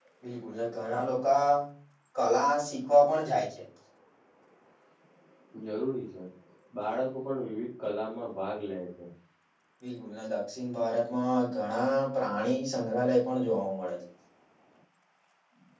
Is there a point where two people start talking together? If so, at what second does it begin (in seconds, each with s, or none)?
none